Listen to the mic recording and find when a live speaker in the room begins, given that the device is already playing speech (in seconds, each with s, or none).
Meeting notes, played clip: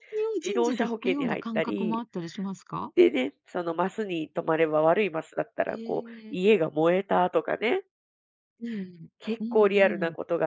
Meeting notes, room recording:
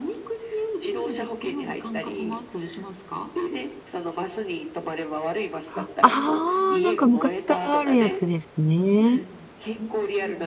5.8 s